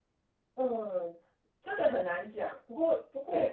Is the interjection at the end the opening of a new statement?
No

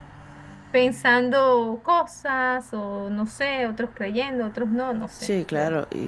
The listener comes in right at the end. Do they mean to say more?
Yes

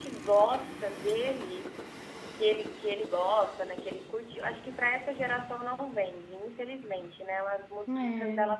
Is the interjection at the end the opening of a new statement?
No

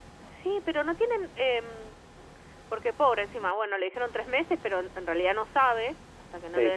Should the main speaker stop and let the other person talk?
Yes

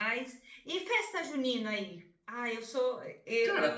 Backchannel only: Yes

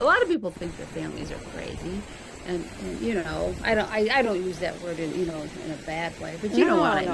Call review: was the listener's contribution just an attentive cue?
No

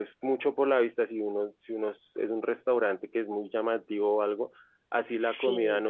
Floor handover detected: No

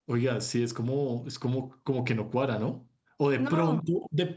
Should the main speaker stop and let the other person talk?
No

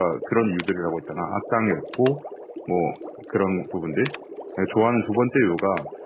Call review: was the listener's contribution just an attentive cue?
Yes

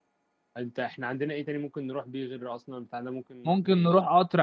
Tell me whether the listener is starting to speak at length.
Yes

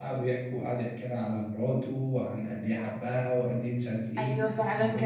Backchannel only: No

